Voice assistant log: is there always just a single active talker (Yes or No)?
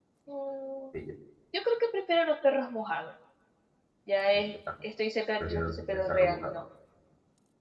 No